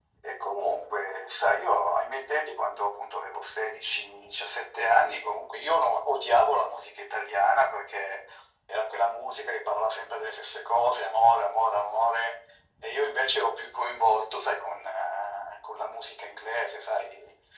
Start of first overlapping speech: none

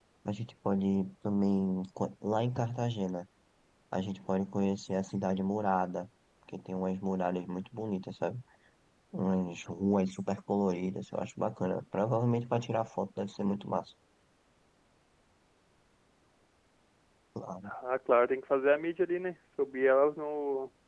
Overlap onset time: none

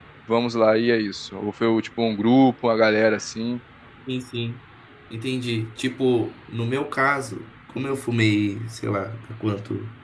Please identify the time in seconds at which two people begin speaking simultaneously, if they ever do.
none

